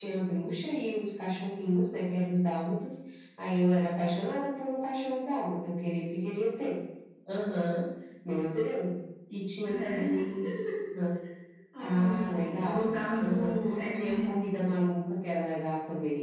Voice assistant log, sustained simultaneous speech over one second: present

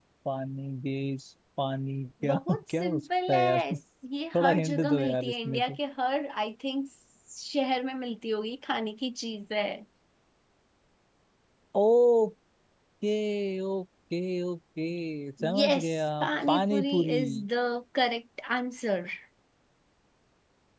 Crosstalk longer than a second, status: present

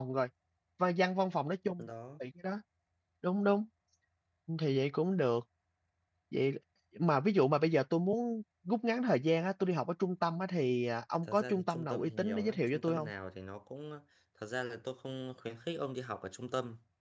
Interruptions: present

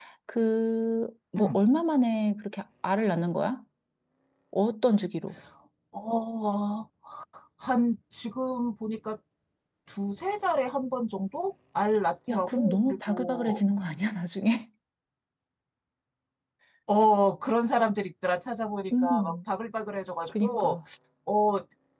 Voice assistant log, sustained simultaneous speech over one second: present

